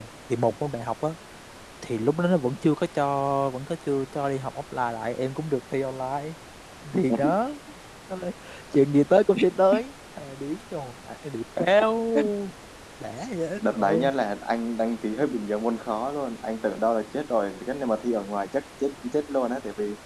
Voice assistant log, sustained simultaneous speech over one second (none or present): none